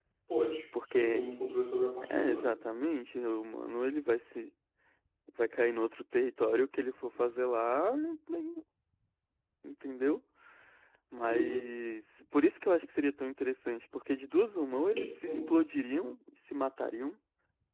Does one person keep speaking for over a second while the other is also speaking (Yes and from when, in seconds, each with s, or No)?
No